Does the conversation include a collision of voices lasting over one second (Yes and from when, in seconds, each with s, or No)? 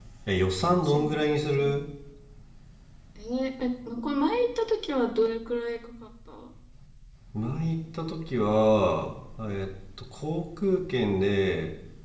No